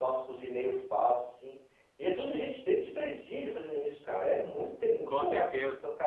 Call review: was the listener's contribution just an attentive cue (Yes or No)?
No